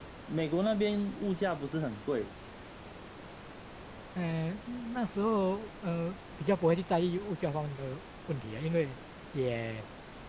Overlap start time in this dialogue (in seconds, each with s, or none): none